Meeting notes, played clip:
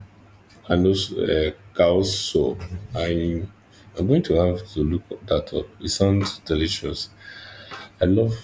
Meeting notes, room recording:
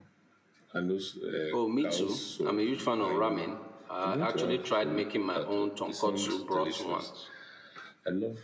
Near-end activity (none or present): present